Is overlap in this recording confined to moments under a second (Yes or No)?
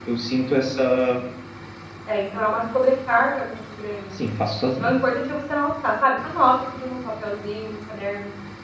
Yes